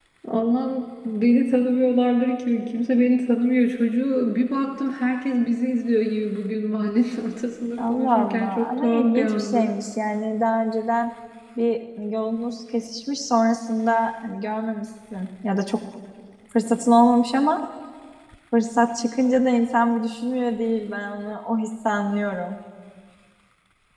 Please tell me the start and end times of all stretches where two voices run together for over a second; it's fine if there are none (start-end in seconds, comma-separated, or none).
7.8-9.7